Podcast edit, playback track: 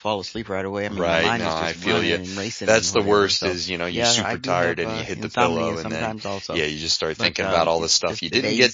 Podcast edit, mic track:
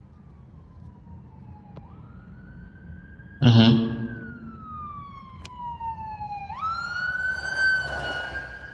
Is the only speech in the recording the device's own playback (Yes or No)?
No